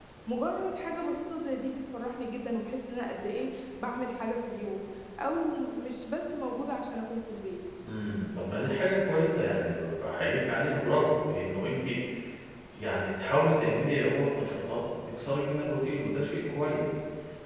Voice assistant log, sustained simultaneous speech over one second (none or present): none